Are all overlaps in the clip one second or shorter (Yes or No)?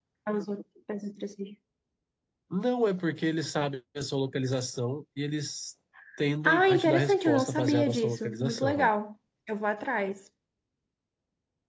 No